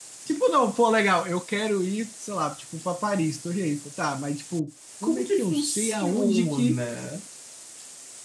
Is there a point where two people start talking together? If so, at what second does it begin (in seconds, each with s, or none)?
5.0 s